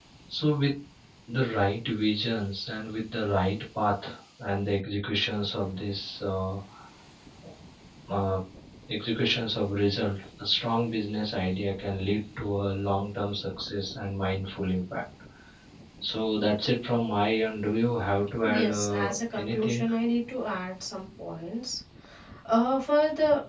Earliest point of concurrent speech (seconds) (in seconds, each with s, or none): 18.4 s